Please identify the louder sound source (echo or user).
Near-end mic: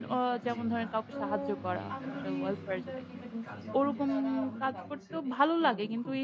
user